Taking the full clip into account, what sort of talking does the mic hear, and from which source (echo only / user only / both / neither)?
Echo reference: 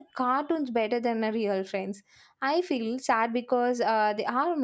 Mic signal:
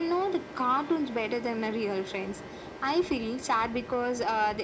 echo only